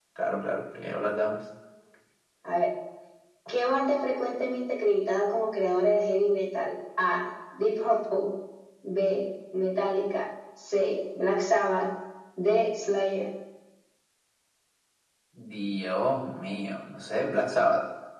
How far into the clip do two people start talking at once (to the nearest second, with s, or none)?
none